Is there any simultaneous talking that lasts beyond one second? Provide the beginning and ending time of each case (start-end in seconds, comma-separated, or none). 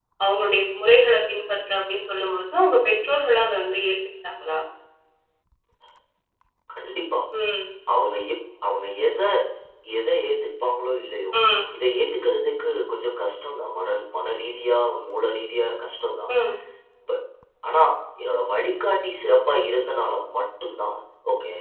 none